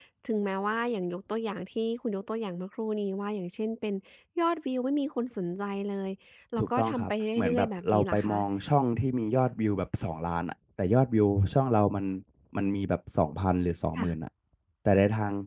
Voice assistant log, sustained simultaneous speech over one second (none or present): present